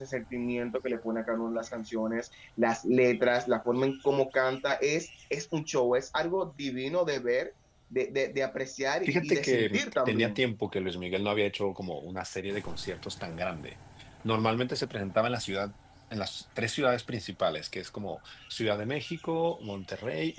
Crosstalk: present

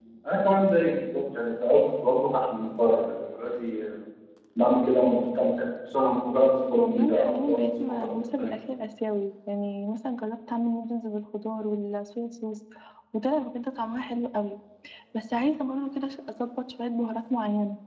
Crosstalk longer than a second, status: present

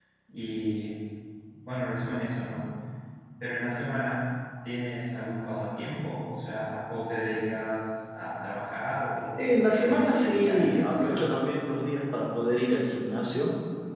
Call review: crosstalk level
present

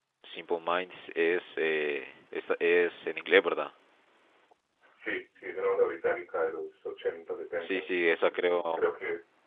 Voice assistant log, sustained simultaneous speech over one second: none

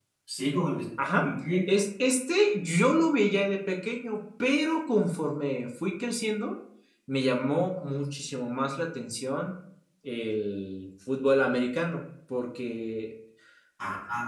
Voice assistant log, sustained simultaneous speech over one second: none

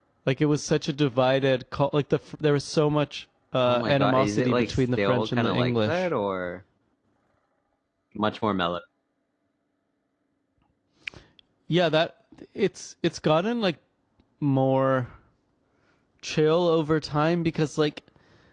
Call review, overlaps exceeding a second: present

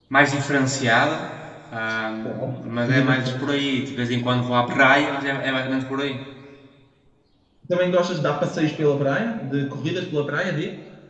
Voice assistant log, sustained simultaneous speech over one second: present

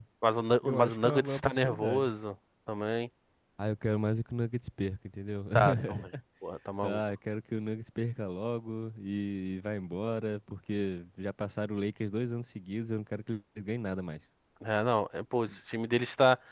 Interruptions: present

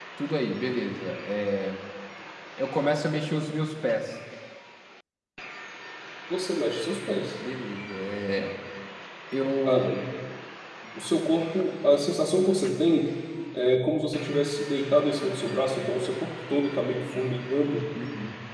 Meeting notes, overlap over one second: none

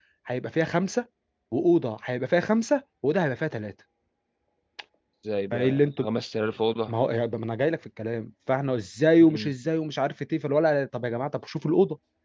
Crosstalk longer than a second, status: none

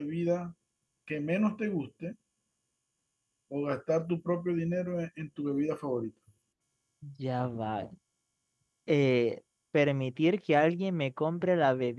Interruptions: none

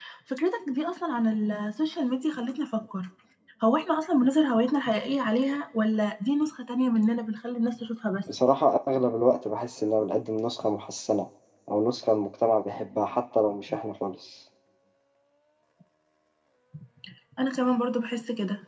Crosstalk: none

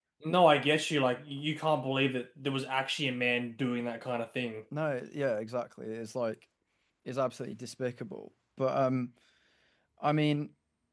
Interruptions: none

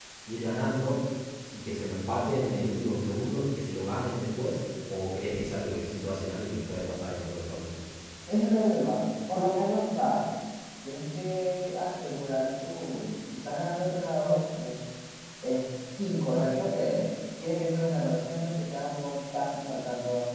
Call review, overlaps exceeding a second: none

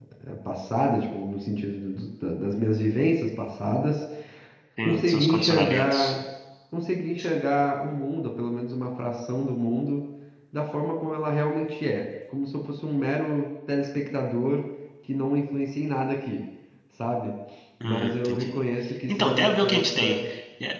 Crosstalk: present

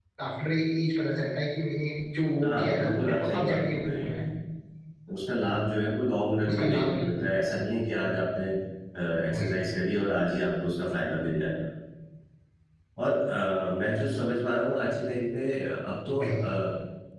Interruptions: present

